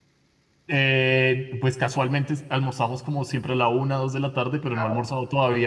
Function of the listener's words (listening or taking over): listening